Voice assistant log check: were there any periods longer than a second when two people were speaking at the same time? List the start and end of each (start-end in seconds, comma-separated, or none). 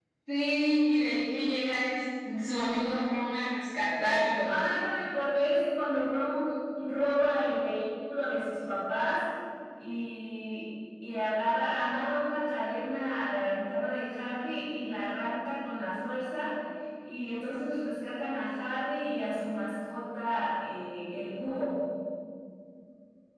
none